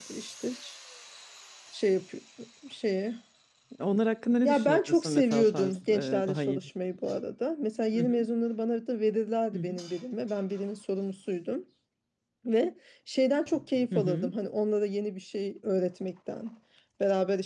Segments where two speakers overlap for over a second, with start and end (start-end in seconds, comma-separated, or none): 4.4-6.7